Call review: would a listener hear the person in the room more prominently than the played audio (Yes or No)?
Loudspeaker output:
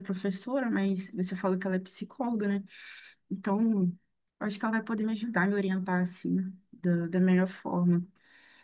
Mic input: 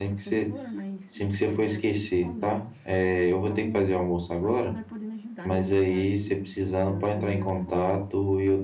Yes